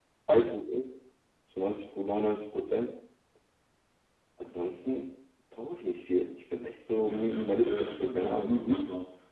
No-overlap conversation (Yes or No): No